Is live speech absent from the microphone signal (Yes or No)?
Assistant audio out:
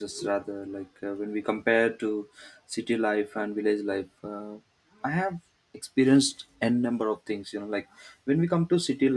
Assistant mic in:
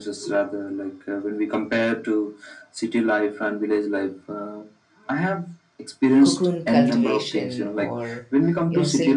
No